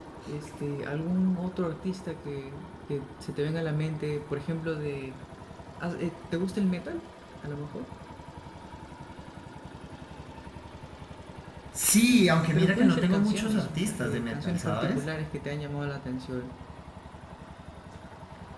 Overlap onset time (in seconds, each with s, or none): 12.5 s